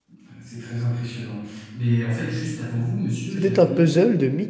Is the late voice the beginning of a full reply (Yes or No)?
Yes